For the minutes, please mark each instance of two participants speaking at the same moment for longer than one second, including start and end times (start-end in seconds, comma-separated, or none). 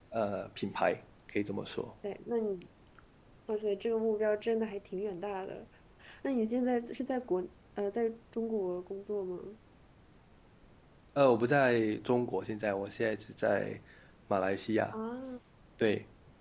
none